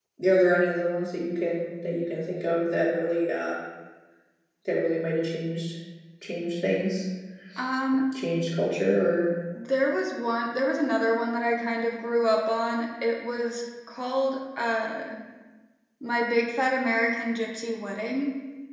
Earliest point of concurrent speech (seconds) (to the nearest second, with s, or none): none